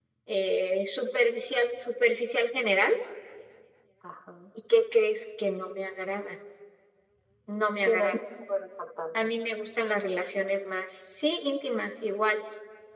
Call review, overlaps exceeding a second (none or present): none